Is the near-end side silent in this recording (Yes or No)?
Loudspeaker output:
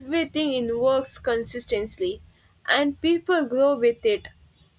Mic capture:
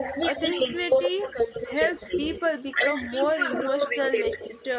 No